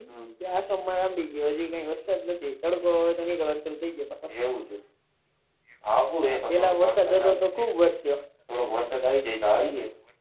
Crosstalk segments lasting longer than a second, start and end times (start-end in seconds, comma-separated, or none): 6.2-7.4